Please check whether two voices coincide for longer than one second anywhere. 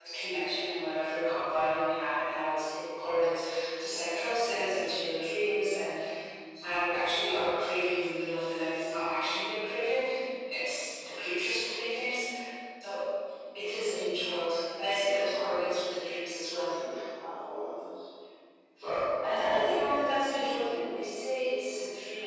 No

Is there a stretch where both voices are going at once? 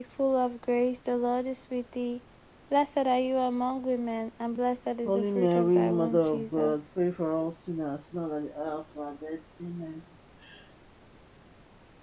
Yes, from 5.0 s

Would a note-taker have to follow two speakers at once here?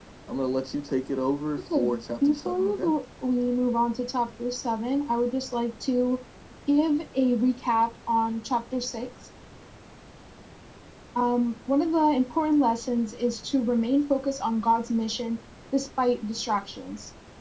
Yes, from 1.6 s

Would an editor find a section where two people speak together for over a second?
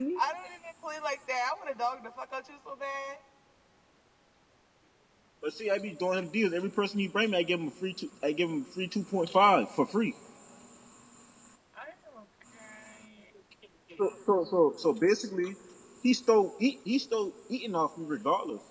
No

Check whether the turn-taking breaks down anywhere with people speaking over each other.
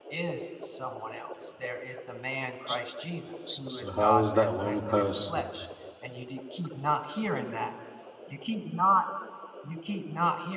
Yes, from 3.5 s

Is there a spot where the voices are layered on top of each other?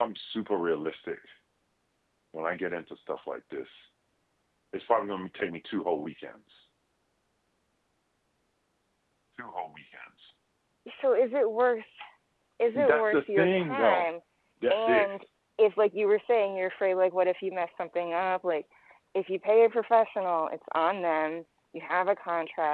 Yes, from 12.6 s

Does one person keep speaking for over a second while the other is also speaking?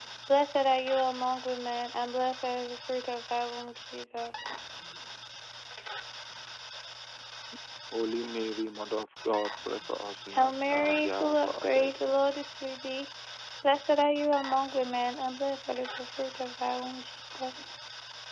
Yes, from 10.3 s

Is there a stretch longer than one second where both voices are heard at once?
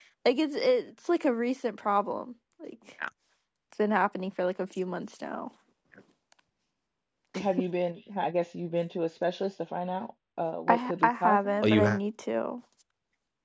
Yes, from 10.7 s

